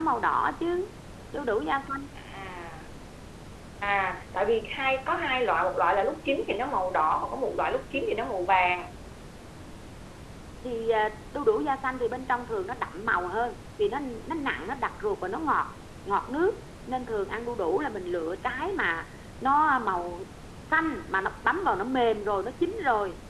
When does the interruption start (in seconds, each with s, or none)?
none